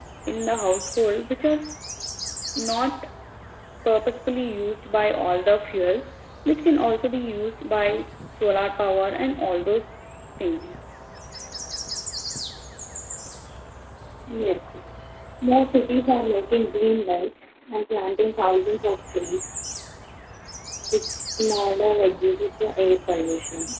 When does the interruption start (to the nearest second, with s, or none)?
none